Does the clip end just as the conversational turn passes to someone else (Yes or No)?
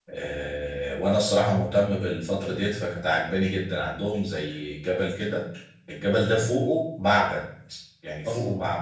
No